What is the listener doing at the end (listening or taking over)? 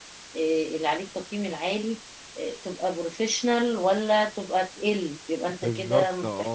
taking over